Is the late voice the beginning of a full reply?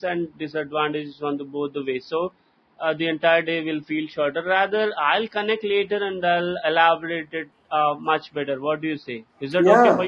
Yes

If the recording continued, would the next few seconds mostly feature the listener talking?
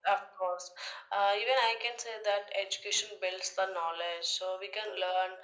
No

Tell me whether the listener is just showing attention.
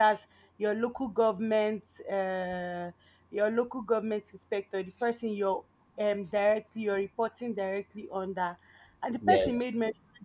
Yes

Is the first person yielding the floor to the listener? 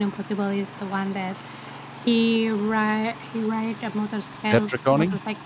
No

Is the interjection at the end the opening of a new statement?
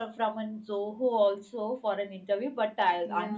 No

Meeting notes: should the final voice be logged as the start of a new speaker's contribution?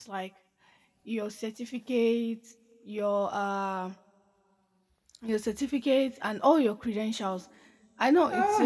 No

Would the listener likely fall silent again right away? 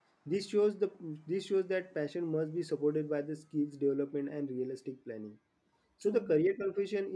Yes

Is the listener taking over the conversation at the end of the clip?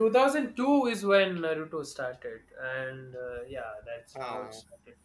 No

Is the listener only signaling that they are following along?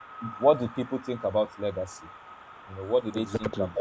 Yes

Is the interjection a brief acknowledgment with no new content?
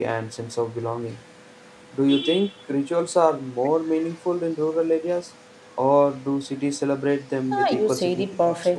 No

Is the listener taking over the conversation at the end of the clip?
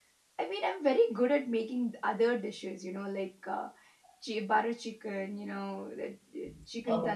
No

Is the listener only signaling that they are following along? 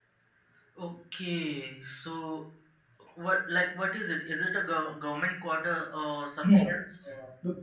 No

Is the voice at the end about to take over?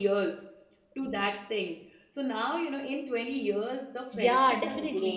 Yes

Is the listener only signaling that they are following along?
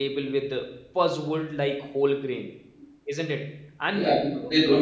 No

